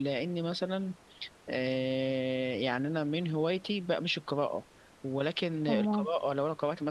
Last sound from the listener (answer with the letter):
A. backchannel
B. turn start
A